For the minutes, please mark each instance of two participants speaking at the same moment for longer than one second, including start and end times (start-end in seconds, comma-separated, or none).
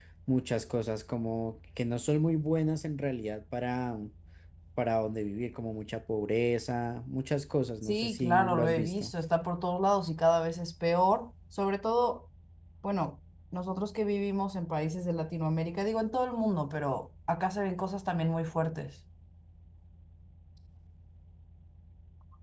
7.8-9.1